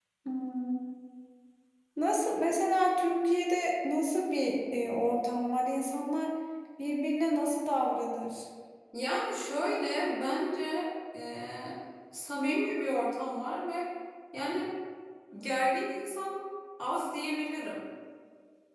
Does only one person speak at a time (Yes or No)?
Yes